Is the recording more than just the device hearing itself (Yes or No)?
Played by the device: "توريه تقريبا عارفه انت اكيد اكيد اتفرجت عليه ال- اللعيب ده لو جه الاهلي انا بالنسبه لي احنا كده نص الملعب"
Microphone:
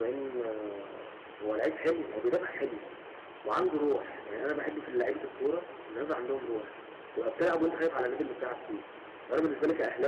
Yes